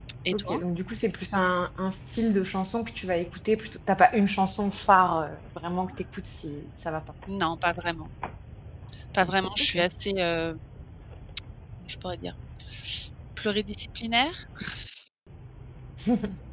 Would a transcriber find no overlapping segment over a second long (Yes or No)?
Yes